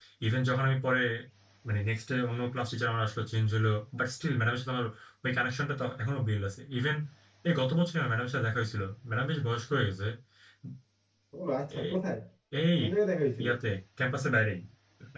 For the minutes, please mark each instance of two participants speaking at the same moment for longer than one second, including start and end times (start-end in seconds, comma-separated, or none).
none